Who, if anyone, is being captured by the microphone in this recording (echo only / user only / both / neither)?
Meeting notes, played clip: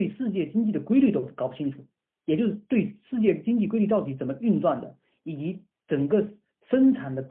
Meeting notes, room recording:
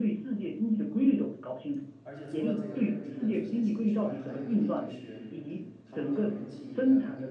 both